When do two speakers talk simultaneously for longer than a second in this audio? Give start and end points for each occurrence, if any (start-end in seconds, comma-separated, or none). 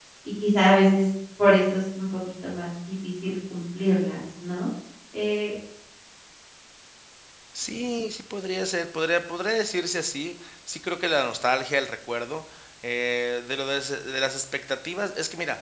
none